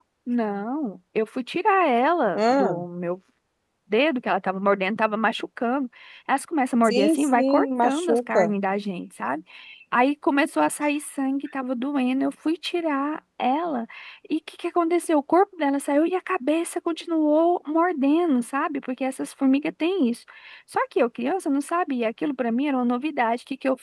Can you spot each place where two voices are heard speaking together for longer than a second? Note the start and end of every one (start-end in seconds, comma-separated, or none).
6.8-8.5